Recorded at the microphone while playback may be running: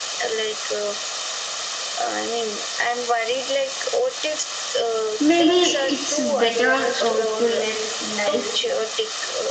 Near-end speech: present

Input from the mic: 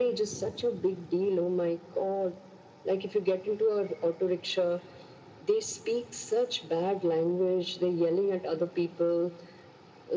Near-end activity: none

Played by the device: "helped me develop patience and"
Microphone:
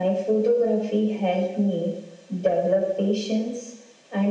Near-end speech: none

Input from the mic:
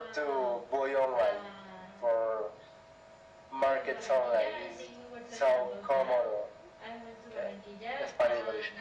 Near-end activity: present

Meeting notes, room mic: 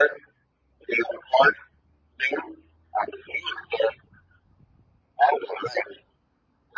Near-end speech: none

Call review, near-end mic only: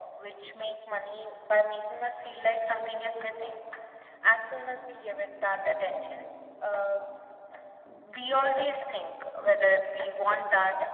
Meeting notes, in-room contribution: none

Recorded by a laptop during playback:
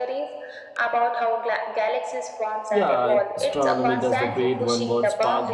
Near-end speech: present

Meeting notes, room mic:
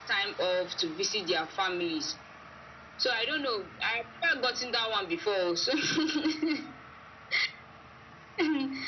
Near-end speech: none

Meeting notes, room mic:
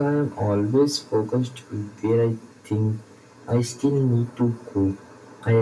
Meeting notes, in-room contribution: none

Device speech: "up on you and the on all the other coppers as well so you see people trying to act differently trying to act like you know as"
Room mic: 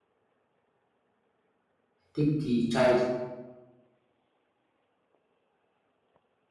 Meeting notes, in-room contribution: present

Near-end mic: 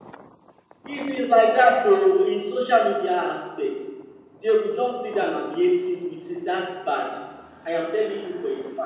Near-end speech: present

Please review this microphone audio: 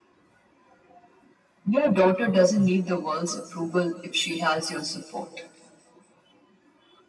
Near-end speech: none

